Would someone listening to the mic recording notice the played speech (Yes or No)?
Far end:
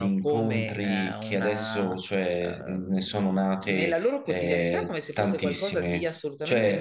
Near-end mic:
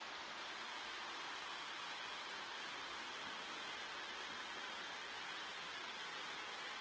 No